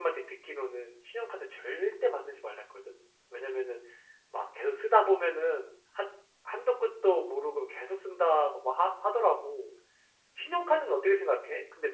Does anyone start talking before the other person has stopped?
No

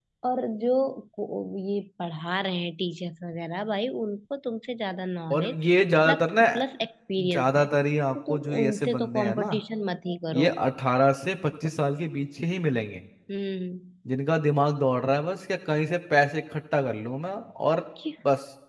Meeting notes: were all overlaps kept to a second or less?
No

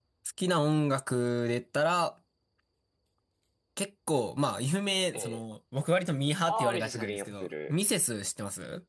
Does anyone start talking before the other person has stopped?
Yes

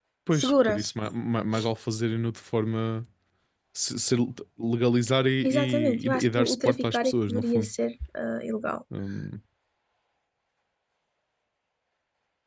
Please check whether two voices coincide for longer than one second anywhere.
Yes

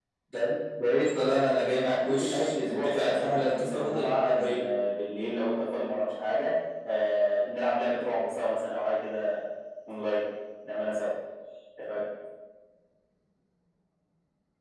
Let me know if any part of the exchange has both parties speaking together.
Yes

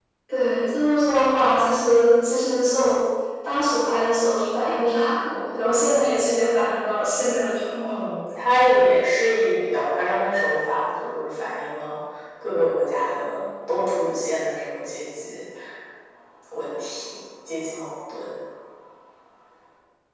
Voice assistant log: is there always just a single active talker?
Yes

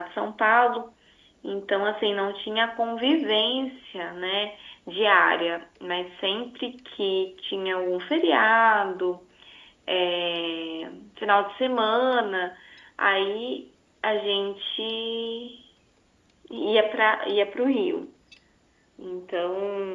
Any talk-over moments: No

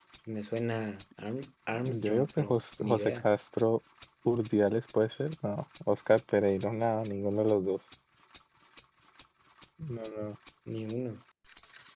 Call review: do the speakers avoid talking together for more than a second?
No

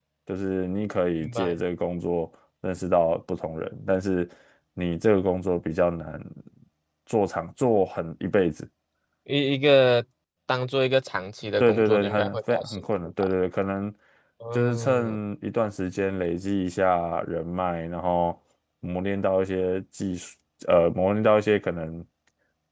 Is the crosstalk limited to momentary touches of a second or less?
No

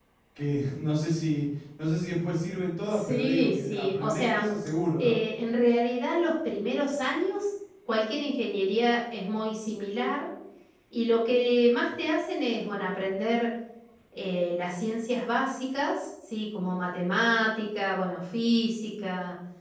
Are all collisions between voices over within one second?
No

